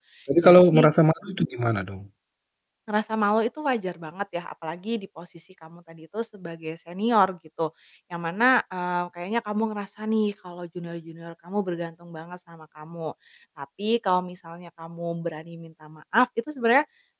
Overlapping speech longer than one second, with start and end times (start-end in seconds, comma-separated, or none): none